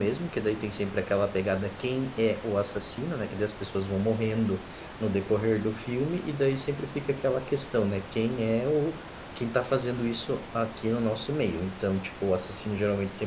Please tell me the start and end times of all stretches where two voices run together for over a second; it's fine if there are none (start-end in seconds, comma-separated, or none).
none